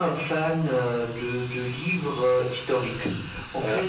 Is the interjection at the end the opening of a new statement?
No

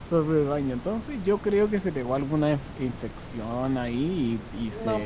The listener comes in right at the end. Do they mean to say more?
No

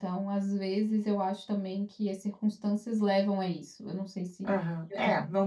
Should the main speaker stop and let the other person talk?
Yes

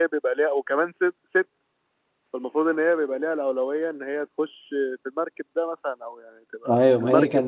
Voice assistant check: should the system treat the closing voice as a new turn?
Yes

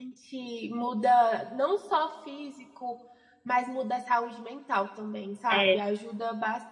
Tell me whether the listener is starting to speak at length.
No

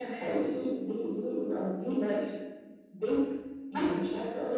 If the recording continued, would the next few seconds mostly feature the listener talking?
No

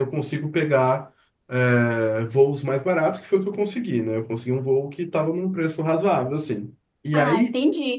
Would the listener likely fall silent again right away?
No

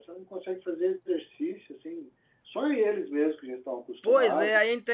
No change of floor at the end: No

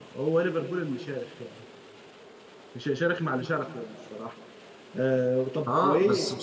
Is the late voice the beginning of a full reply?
Yes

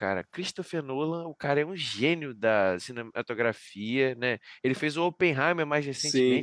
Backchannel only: No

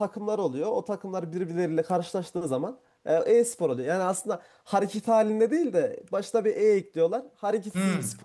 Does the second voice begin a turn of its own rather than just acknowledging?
Yes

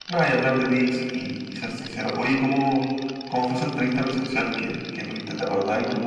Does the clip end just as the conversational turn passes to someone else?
No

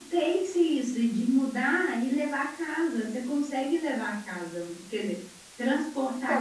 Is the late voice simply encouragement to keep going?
No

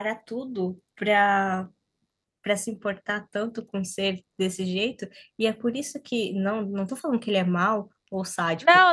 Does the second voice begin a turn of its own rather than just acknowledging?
Yes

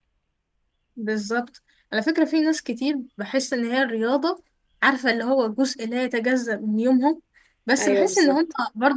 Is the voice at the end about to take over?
No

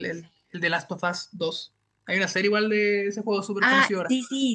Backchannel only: No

